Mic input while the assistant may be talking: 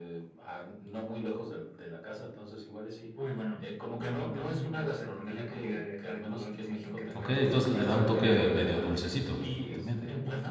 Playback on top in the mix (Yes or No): No